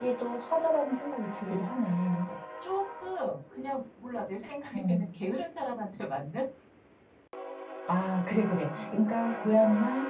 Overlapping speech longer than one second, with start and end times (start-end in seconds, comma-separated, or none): none